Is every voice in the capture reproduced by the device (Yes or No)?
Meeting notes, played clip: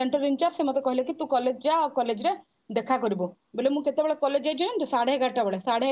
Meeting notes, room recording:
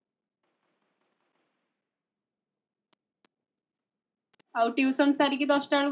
No